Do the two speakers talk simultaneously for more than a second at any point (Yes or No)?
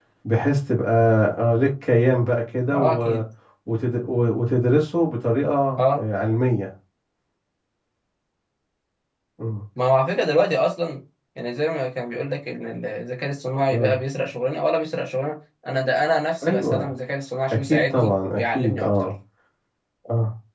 Yes